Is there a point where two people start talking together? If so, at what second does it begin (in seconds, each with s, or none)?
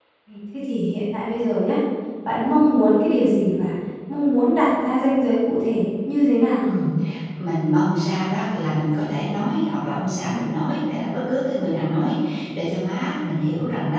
none